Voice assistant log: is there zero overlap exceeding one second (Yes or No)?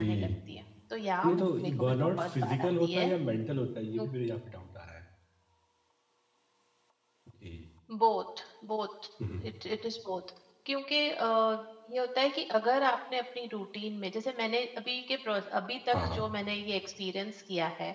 No